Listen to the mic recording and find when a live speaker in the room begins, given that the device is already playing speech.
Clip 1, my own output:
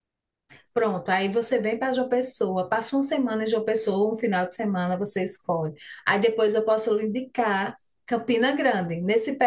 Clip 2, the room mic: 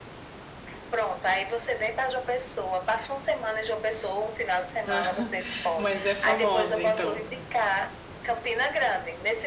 4.8 s

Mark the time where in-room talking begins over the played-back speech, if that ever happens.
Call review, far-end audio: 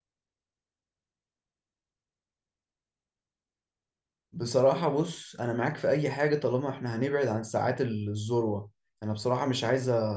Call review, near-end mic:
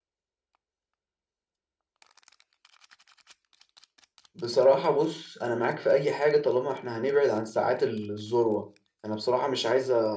none

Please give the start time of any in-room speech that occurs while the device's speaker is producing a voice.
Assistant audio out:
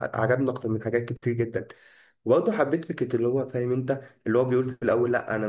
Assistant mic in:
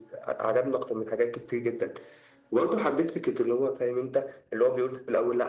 none

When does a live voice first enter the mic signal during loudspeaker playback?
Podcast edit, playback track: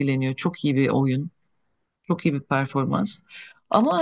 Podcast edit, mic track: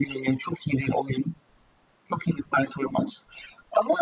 none

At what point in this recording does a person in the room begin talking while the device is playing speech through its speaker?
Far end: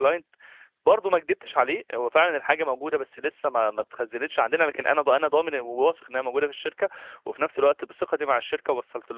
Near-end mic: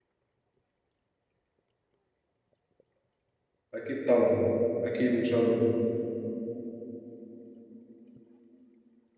3.7 s

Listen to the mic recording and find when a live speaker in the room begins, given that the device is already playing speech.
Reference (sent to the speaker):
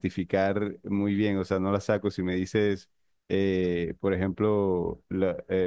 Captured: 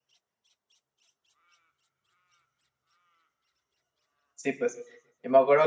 4.3 s

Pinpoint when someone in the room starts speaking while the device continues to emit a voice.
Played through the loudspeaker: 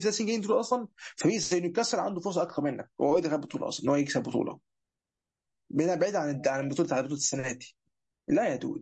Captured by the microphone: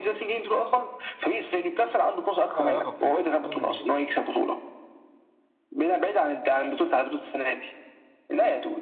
2.5 s

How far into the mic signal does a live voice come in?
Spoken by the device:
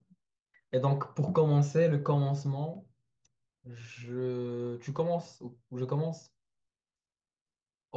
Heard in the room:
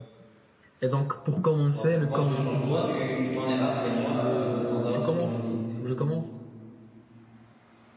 1.7 s

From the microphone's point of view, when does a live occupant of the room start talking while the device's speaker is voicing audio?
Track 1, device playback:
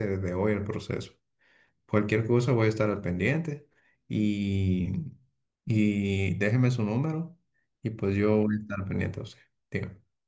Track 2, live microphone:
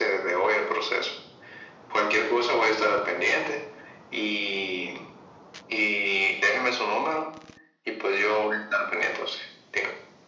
none

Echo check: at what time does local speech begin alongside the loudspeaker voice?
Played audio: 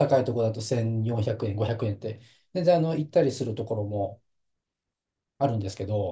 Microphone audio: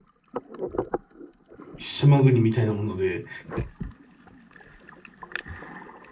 1.8 s

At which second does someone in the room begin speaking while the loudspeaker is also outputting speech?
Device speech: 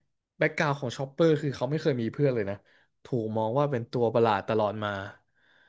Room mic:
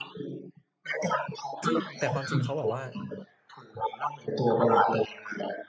1.6 s

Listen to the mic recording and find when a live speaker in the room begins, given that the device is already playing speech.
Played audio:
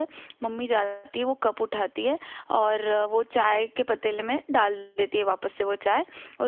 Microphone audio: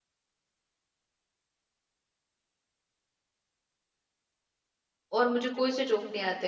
5.2 s

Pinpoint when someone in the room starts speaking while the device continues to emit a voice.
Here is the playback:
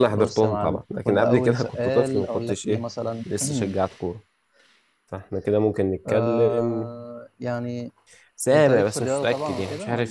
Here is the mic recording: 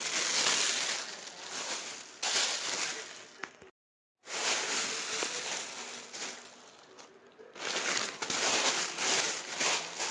none

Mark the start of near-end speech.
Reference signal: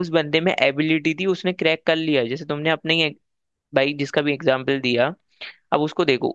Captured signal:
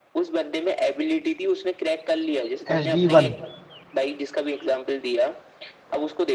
2.8 s

